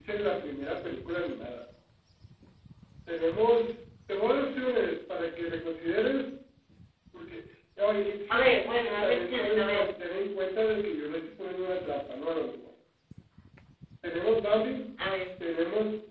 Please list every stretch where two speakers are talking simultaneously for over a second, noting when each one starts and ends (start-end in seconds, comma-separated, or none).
8.3-9.8